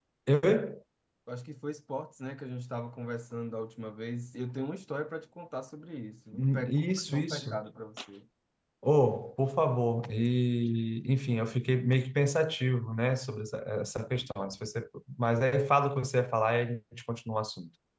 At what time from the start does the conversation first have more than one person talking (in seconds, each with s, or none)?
6.3 s